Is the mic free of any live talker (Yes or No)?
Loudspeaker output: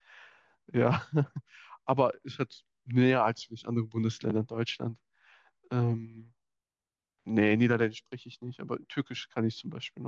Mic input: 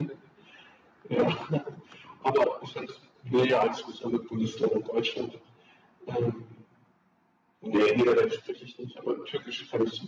Yes